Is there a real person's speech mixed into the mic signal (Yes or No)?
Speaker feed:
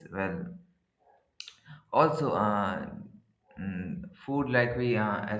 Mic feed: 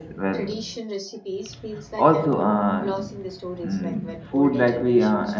Yes